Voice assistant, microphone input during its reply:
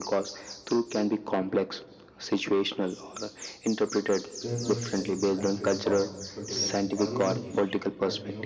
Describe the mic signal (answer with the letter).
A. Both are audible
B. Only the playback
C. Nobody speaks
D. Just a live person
A